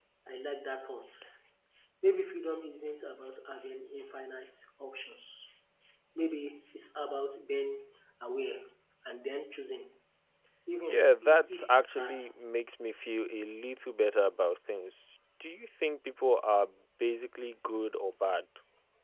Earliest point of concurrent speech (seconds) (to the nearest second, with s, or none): 11 s